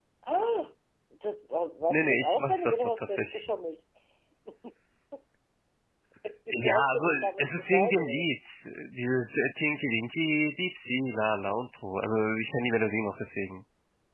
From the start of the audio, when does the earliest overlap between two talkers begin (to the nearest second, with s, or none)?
2 s